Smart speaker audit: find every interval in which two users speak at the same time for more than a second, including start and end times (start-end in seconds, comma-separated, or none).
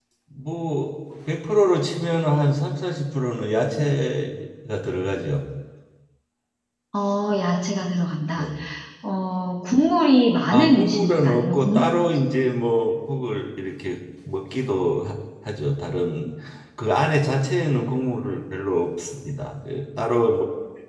10.5-11.8